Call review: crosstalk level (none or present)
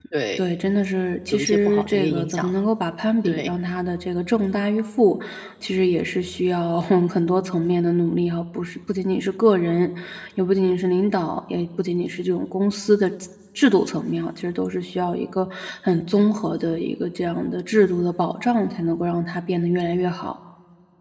present